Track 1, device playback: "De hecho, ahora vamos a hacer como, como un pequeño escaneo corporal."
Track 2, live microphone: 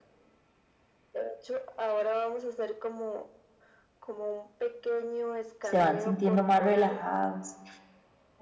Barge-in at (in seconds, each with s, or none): 5.6 s